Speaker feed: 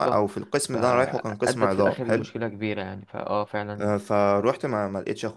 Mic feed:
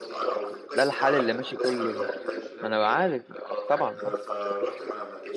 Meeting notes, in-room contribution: present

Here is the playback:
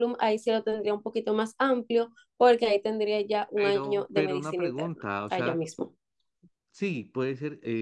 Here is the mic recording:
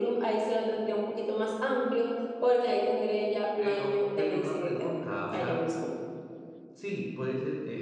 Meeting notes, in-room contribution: none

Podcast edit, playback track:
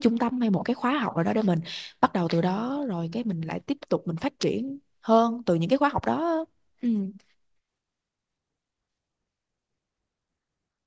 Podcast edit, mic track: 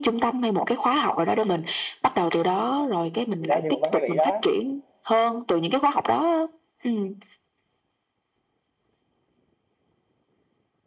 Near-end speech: present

